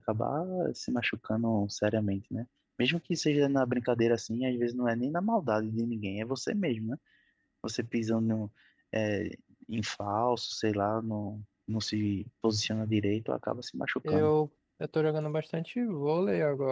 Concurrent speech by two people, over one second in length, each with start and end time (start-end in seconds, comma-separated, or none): none